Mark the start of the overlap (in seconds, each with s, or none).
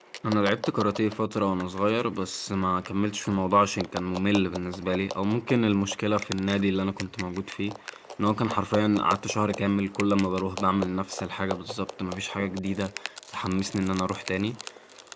none